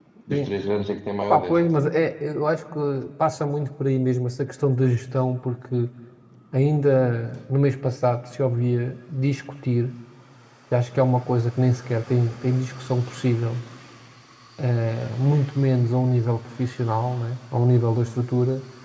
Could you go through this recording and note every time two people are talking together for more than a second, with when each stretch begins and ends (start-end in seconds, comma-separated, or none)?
none